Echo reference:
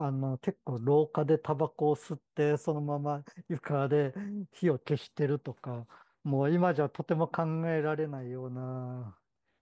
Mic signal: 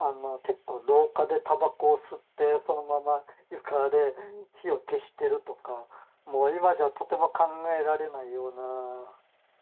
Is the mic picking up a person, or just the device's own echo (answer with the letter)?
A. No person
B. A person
A